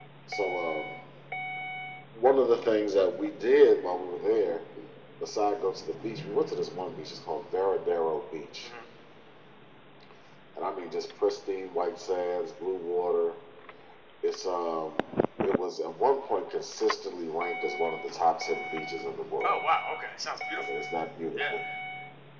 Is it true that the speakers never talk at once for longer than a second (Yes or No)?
Yes